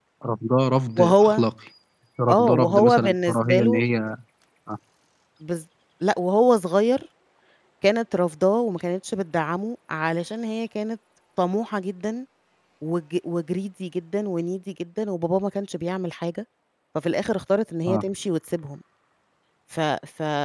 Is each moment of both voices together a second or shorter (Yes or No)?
No